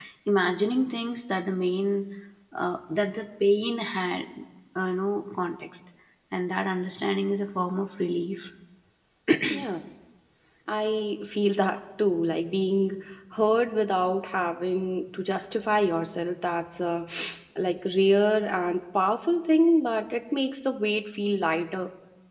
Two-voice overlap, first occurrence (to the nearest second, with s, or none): none